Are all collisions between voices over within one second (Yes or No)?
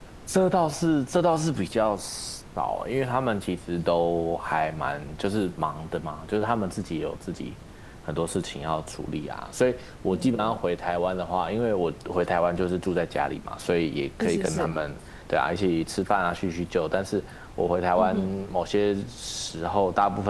Yes